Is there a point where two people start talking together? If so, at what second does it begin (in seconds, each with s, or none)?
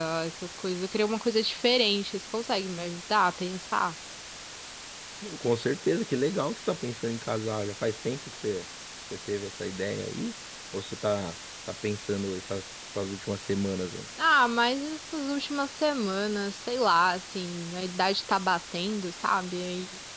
none